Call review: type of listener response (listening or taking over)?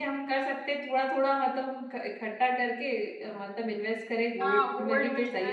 taking over